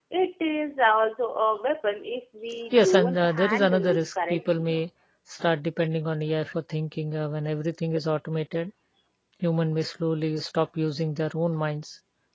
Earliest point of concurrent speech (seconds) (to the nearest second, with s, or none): 3 s